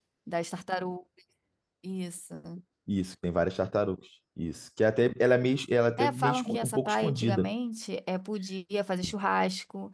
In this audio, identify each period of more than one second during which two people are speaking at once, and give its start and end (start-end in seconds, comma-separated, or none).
6.0-7.5